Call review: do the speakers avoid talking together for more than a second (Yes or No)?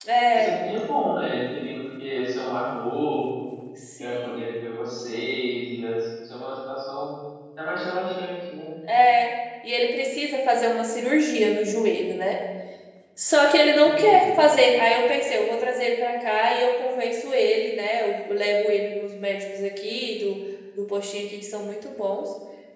Yes